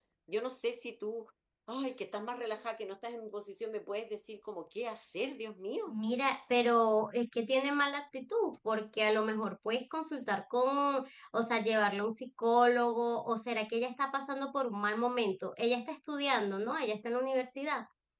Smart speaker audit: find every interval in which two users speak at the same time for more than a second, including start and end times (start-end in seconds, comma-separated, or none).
none